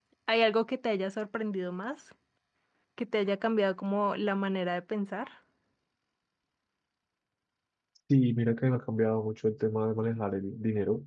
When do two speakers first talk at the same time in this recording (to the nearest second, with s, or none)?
none